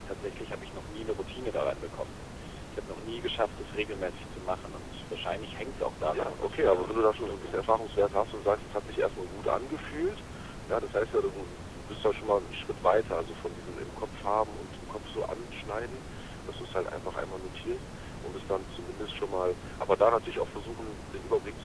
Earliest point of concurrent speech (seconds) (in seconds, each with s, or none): 6.1 s